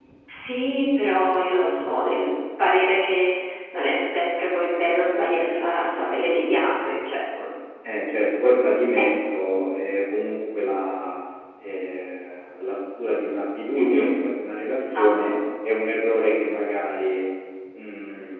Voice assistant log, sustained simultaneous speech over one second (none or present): none